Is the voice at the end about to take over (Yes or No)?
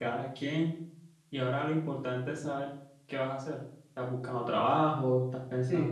Yes